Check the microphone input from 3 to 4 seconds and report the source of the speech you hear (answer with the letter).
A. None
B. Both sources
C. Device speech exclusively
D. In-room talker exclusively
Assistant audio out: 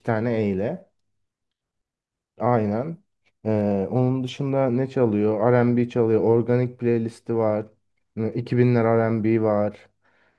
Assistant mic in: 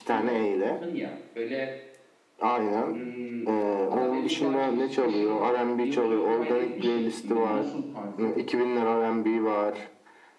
B